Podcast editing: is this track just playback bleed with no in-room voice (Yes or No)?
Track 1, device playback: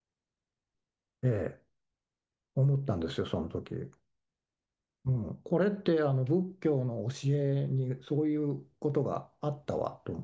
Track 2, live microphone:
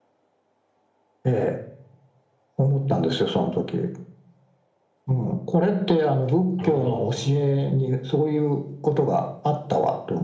No